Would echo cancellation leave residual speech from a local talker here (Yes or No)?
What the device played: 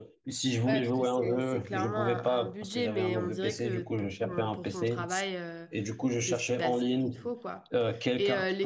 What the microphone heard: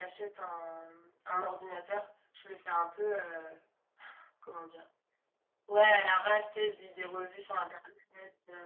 Yes